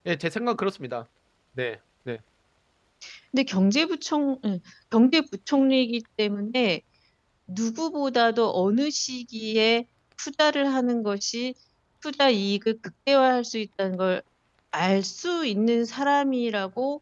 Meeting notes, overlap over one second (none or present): none